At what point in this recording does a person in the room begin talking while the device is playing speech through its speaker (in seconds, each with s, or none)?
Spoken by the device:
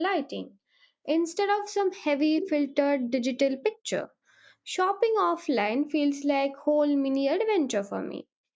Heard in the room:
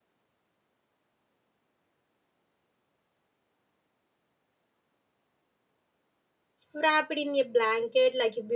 6.7 s